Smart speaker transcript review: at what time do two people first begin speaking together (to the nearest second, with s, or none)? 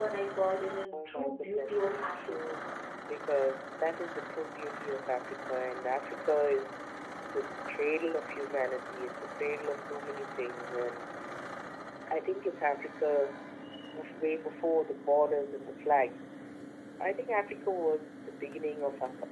1 s